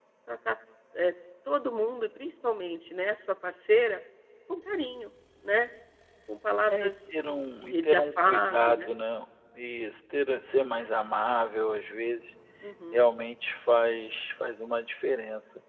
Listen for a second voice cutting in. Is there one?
Yes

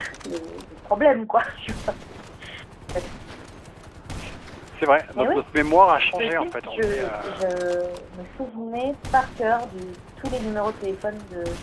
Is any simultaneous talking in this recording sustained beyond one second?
Yes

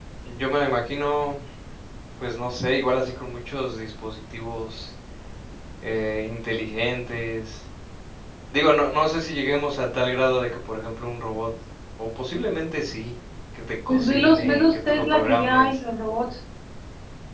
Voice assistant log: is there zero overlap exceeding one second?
No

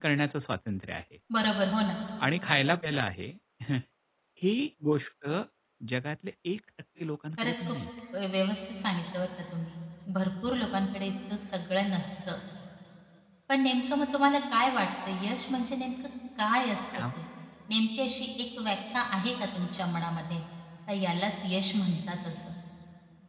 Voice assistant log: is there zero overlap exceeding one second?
Yes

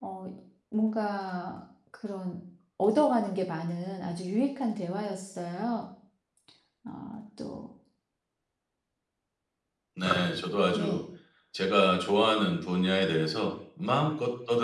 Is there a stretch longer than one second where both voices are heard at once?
No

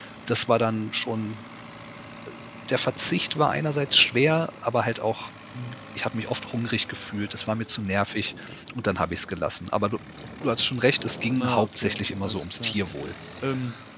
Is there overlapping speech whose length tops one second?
Yes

